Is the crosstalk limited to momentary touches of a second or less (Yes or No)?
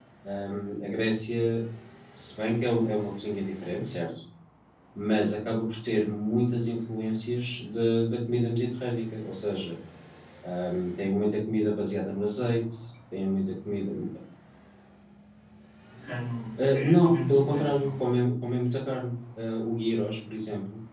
No